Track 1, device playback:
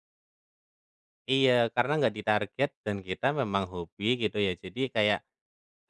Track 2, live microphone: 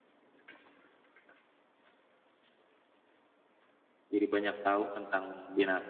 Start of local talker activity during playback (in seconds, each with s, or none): 4.1 s